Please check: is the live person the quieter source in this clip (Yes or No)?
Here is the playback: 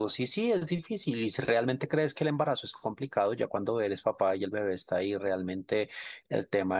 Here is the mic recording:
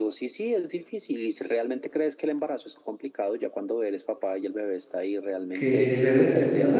No